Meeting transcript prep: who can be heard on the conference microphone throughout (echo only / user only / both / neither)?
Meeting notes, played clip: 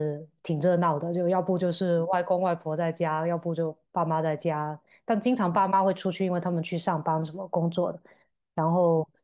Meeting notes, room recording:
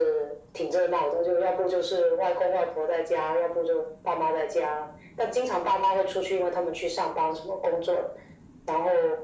echo only